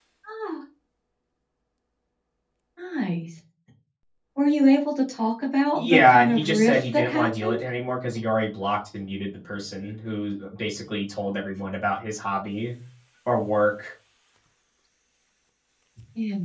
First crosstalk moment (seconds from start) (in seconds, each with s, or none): 5.8 s